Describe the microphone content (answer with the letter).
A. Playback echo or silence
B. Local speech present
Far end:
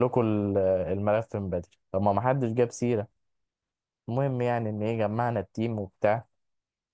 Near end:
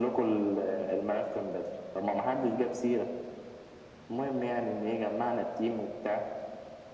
A